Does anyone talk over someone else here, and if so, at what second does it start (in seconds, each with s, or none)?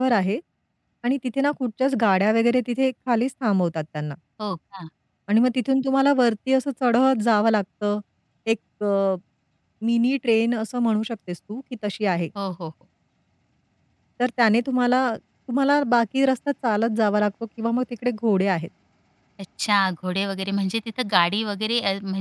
none